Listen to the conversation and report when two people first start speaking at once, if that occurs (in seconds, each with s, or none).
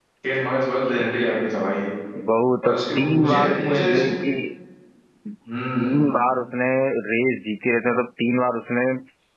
2.6 s